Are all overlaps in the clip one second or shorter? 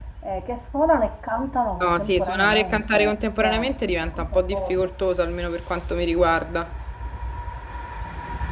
No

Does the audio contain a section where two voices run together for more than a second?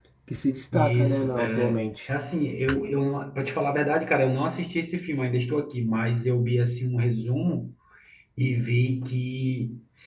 Yes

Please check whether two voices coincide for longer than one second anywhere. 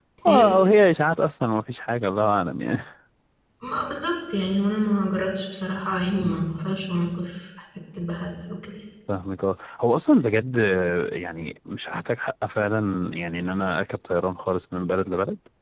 No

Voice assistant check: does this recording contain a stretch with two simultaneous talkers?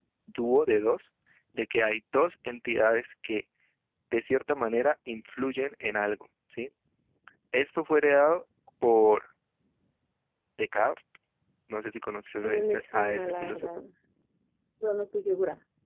Yes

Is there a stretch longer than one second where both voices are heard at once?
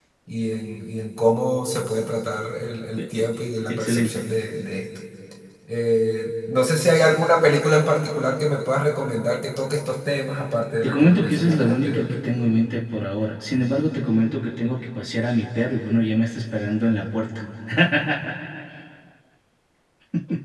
Yes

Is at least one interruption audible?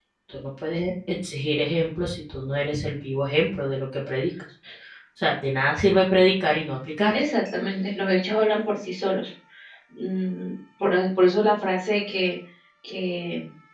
No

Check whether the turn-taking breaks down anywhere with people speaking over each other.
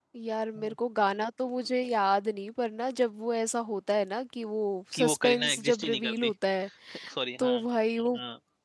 Yes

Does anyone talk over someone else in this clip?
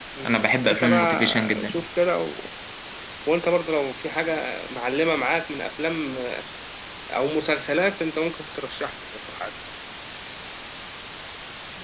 Yes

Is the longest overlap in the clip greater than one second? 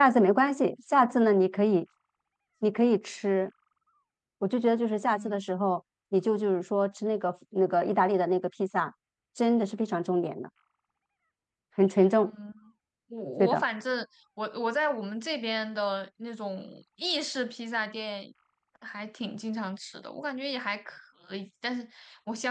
No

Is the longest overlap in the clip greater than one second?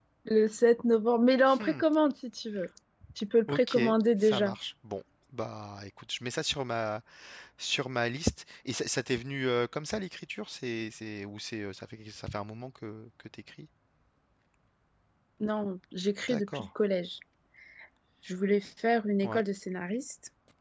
No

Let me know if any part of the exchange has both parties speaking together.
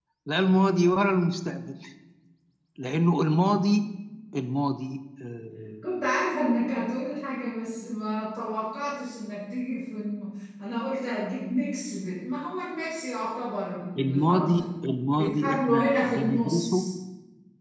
Yes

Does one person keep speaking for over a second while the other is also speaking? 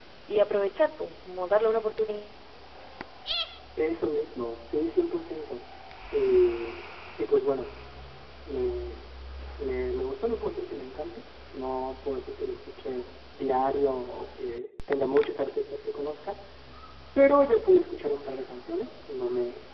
No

